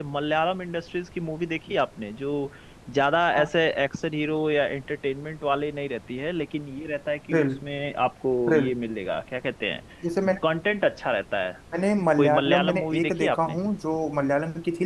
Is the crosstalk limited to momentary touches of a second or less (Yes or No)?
No